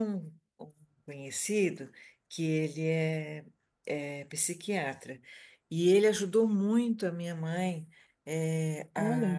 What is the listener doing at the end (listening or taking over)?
listening